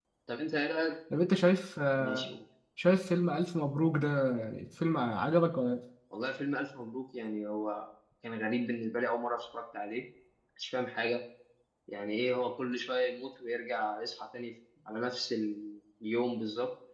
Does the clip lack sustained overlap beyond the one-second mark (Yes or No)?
Yes